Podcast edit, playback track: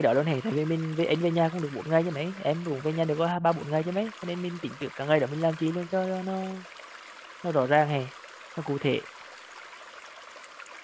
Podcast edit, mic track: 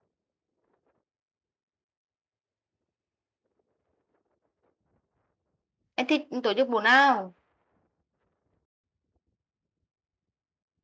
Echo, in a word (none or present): none